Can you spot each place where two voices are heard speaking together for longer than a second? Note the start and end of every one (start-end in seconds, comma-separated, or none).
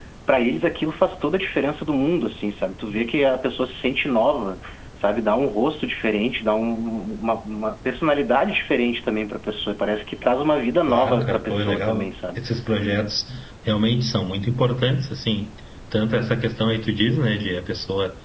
10.9-12.4